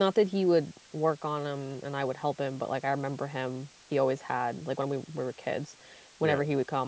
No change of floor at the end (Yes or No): Yes